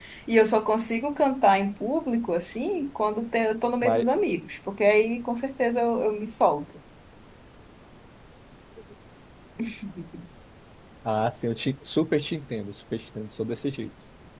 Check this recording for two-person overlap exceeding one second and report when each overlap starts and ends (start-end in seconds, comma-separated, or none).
none